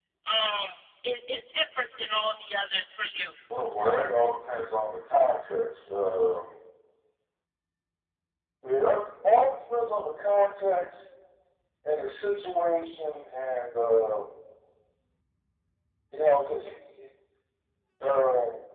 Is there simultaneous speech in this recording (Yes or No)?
No